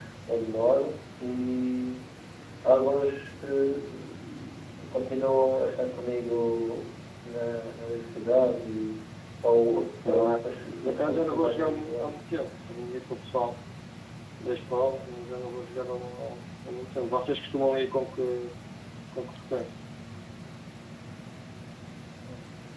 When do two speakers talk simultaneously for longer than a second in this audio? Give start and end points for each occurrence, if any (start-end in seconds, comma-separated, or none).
10.8-12.1